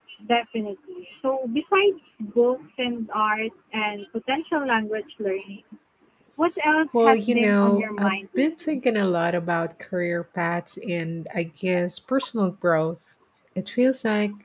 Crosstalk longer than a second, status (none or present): present